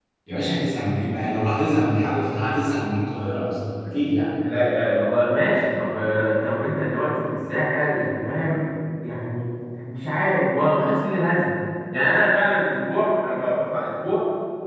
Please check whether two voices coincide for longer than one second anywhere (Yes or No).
No